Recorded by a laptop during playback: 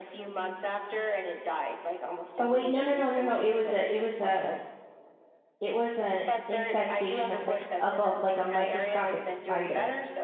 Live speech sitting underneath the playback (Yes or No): No